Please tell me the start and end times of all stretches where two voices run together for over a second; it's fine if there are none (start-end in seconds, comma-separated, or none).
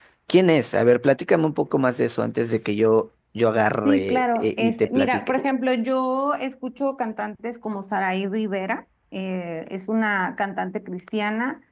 3.9-5.4